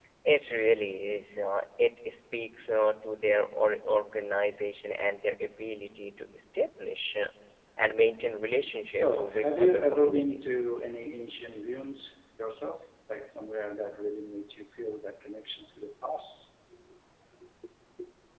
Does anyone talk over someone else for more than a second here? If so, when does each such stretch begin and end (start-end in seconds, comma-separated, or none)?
8.9-10.5